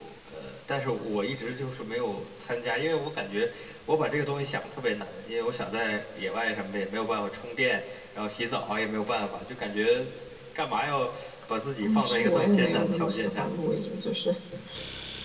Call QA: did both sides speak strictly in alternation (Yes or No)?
No